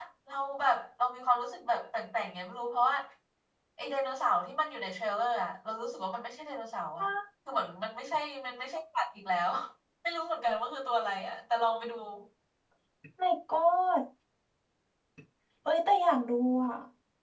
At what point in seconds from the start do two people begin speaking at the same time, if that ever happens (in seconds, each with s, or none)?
none